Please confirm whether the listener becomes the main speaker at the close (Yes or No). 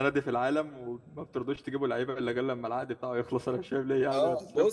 Yes